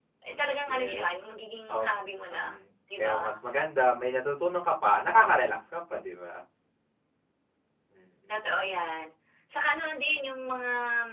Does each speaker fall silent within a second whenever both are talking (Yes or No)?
Yes